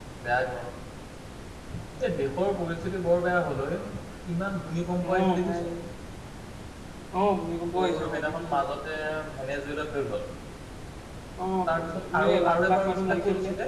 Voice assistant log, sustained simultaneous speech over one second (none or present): present